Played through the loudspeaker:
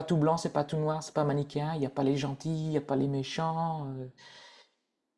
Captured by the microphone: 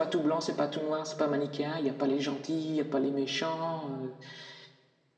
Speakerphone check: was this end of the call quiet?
Yes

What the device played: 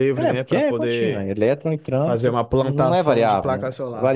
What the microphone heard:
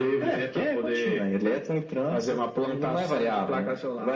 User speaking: No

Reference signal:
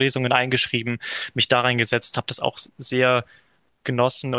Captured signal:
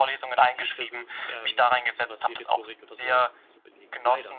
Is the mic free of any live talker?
No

